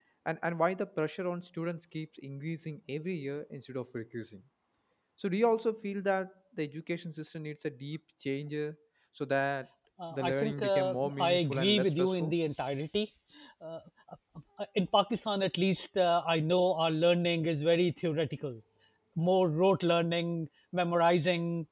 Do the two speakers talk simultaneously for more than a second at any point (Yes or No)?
Yes